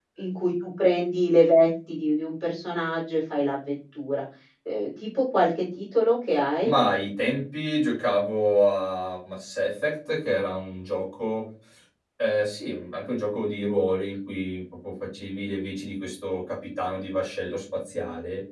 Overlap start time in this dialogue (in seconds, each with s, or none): none